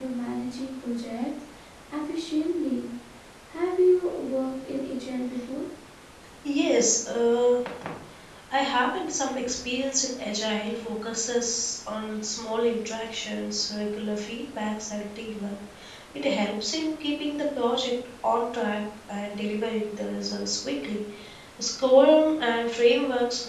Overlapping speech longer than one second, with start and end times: none

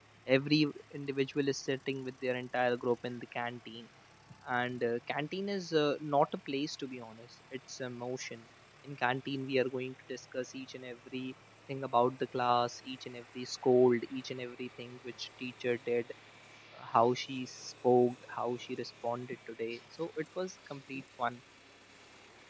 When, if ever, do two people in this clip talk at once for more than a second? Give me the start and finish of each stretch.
none

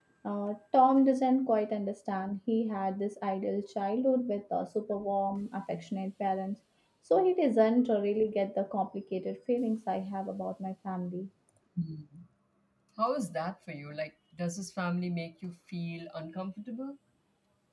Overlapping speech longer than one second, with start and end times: none

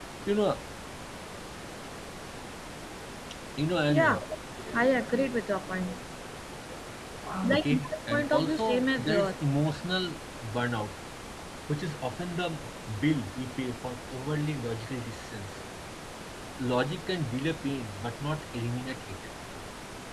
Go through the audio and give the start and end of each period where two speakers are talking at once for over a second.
7.5-9.3

